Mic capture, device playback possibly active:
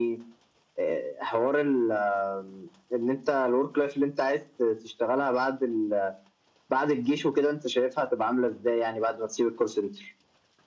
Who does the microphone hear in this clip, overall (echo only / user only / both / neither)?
echo only